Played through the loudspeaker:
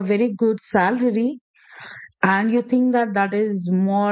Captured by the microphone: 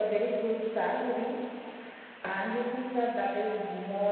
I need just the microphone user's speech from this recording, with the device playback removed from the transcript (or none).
none